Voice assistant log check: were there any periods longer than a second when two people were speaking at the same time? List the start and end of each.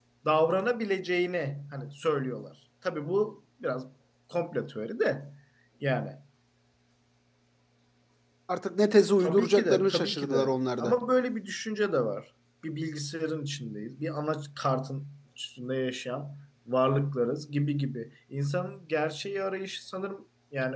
9.2-10.9

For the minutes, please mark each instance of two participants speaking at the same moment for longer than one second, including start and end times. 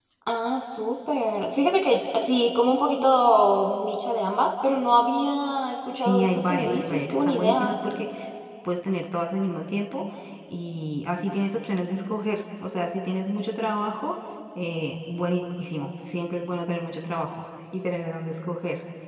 6.0-7.7

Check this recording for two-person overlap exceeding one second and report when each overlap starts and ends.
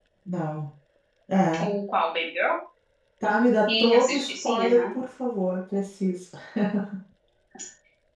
3.7-5.0

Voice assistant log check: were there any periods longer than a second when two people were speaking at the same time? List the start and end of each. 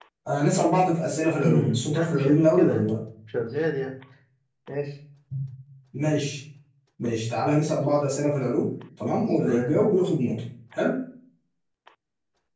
1.4-2.9

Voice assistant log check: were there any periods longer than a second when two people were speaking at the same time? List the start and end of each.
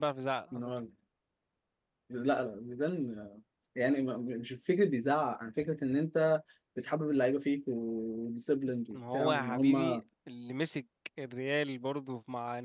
8.7-10.0

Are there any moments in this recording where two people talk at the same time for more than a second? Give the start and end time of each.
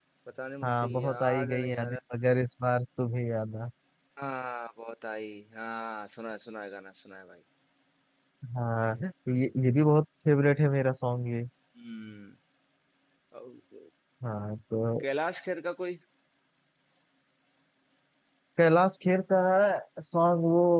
0.6-2.0

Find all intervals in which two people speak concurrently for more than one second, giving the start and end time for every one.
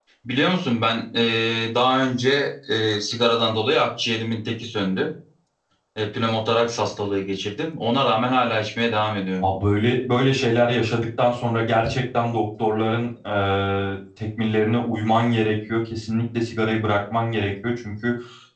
none

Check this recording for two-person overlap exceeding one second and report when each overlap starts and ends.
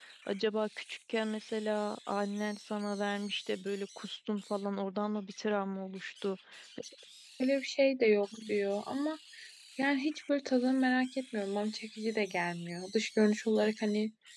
none

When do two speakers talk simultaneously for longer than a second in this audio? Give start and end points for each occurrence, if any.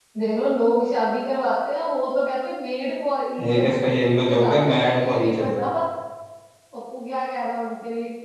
3.5-5.6

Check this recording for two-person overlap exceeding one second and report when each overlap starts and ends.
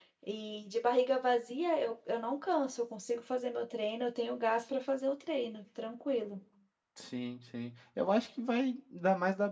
none

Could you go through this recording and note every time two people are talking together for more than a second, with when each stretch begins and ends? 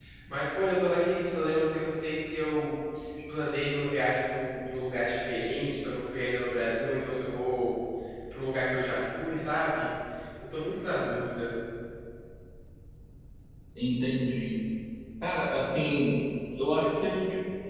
none

